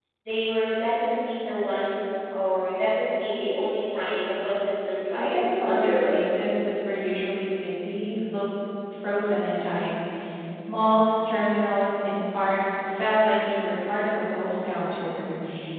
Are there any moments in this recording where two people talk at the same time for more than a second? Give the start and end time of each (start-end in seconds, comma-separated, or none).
5.2-6.5